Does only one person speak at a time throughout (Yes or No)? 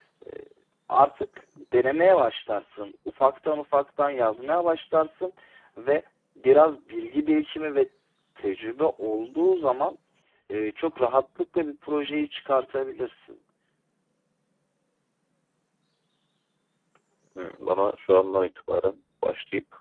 Yes